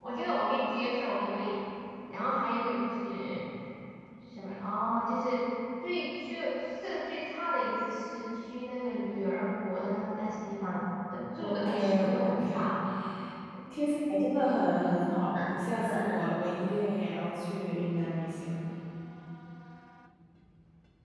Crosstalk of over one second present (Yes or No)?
Yes